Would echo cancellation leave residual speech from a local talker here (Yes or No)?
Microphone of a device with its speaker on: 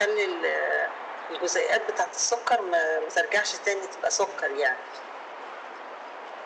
No